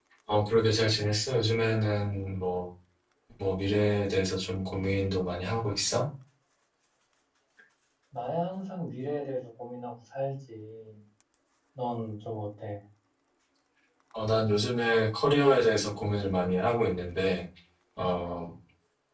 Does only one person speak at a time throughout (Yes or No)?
Yes